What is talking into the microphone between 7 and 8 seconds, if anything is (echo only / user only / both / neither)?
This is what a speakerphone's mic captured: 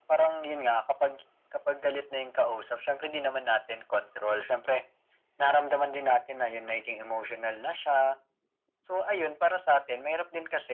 echo only